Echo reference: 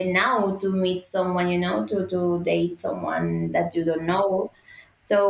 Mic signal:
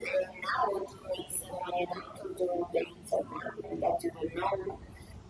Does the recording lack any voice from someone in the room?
Yes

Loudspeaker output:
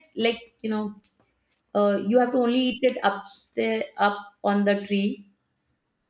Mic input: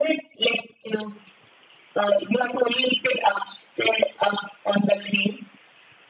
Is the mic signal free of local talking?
Yes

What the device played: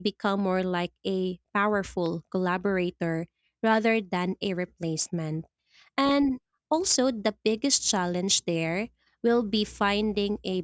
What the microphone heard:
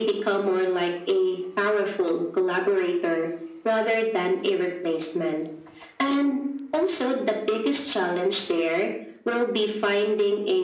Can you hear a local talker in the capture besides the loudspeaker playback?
No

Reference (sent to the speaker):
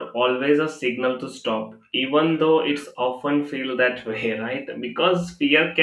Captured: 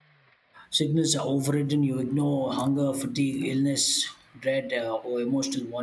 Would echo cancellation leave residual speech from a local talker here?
Yes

